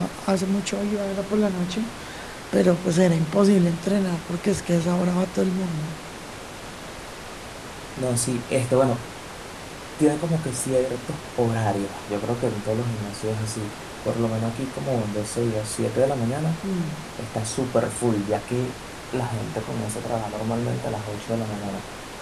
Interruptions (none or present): none